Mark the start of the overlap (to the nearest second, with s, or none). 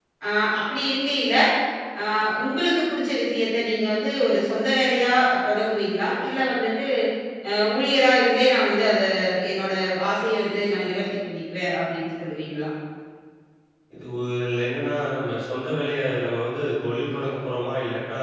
none